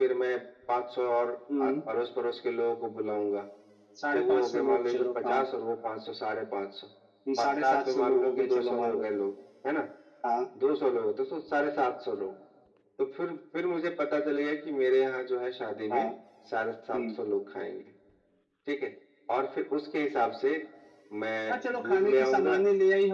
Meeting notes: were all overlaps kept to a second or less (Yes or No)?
No